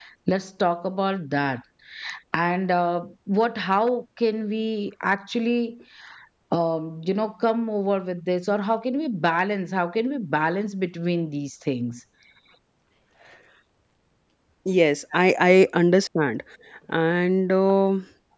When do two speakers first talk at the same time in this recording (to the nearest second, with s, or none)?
none